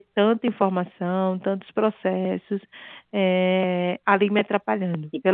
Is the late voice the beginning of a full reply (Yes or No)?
Yes